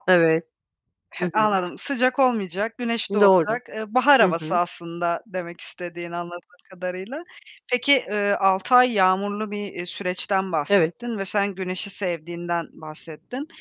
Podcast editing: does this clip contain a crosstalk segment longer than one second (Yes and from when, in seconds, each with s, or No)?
No